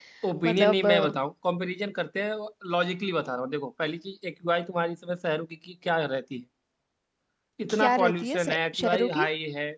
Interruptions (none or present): present